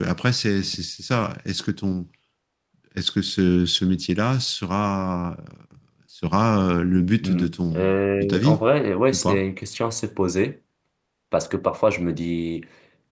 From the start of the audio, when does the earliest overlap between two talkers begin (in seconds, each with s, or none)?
7.2 s